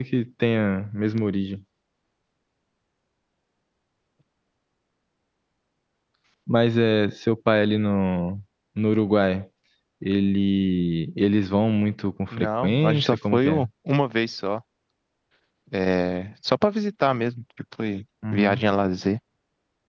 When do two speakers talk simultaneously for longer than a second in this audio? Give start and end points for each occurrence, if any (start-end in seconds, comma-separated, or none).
12.4-13.7